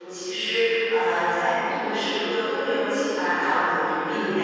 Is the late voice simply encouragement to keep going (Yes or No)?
Yes